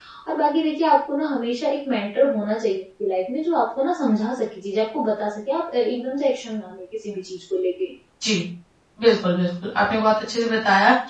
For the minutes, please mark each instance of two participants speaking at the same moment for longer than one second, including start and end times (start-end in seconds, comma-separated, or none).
none